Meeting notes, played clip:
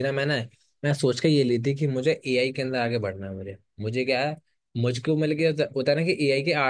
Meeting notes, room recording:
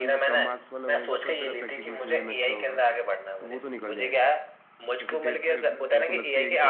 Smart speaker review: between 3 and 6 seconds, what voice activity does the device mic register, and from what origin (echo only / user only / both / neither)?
both